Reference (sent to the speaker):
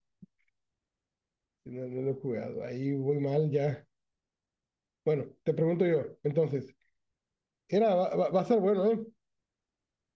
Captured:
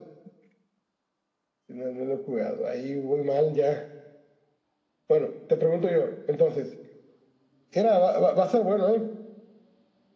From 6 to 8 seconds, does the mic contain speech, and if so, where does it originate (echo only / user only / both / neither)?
echo only